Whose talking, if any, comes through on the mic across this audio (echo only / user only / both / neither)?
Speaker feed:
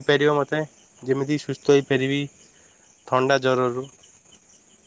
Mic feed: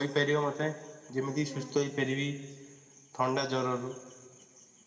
both